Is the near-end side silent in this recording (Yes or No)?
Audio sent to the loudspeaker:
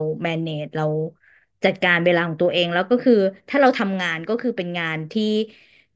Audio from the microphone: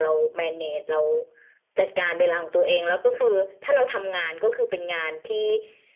Yes